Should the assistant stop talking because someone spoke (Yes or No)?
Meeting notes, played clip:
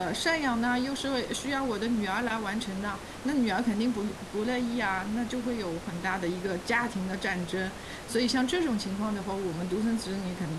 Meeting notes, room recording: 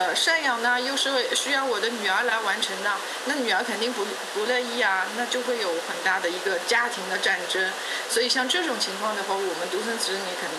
No